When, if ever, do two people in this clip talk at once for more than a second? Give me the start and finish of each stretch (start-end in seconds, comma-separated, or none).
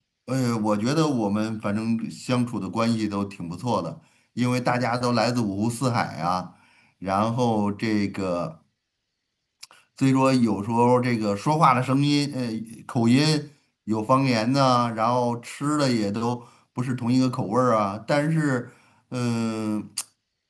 none